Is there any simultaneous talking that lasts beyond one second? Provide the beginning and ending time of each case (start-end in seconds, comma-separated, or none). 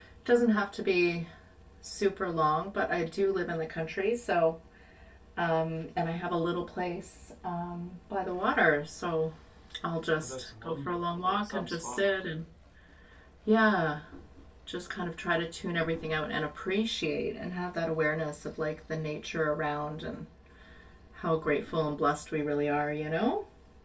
10.2-12.1